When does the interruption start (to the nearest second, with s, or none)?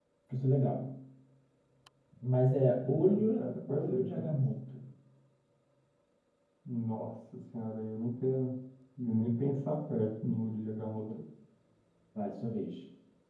3 s